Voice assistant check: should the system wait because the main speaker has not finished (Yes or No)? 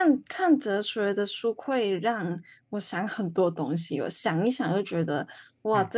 Yes